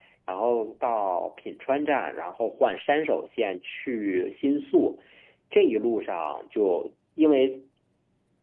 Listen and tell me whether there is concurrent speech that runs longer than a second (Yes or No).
No